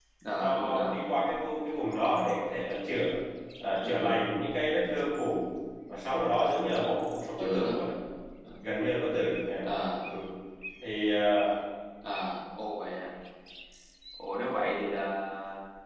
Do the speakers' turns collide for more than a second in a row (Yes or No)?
No